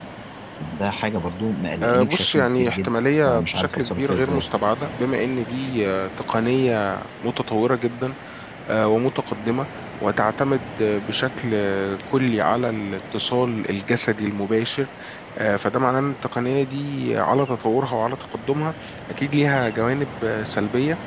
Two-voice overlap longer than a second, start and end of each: 1.8-4.5

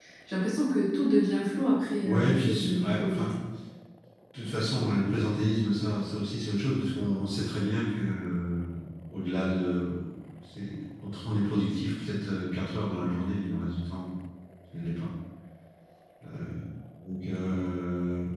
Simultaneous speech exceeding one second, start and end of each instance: 2.0-3.3

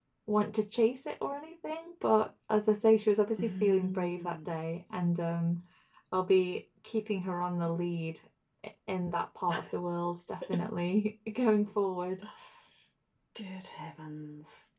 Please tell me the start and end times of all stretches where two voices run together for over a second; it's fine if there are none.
3.4-4.6

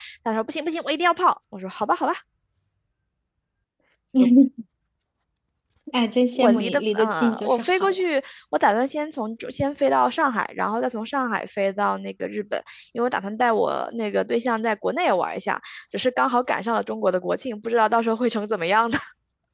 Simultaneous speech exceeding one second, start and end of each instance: 6.3-7.9

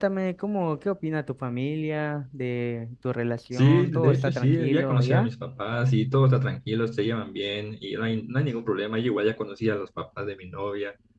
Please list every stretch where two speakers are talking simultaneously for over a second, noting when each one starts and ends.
3.5-5.3

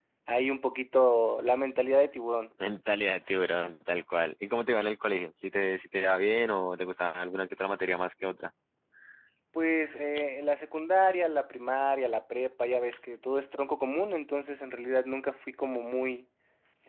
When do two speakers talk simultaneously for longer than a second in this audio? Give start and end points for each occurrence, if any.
none

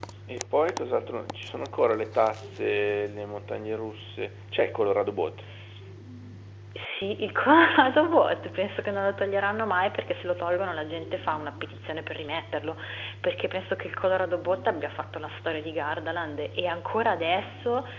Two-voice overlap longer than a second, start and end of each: none

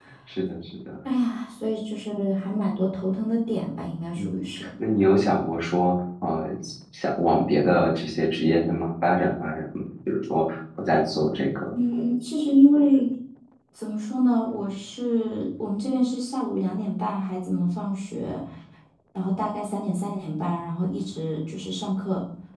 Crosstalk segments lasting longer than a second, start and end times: none

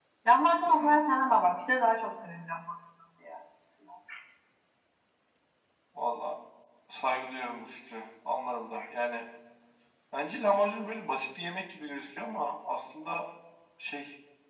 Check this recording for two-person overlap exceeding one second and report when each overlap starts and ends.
none

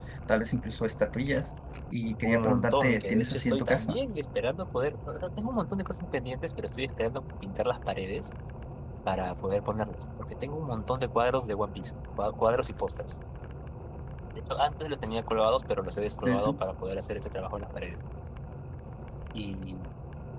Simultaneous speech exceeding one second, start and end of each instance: 2.2-4.0

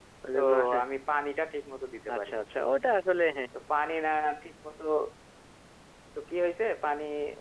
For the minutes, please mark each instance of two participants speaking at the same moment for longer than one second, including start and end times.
none

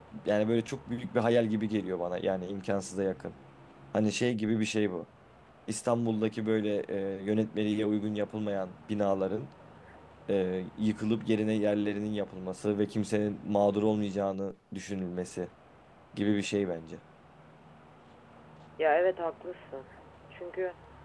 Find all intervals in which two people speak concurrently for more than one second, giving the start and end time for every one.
none

